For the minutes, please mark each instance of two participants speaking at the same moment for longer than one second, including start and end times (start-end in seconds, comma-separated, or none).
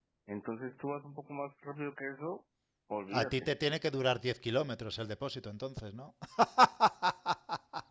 none